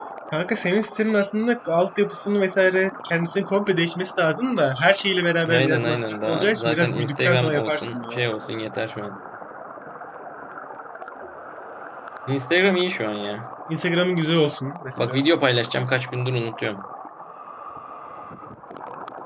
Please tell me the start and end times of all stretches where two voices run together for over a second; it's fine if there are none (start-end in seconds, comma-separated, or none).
5.5-8.2